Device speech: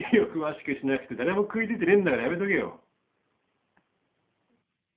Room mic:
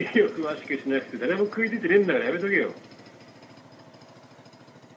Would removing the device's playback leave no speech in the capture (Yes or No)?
Yes